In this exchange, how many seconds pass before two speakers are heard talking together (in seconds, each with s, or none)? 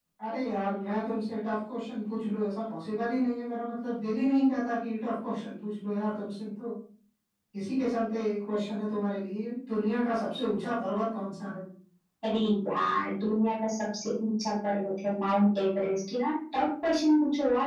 none